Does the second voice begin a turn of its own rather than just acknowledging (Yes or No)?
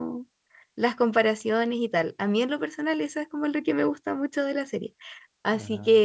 No